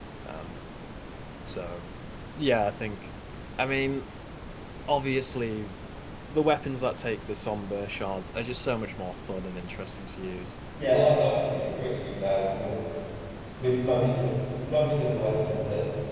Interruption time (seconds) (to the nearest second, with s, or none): none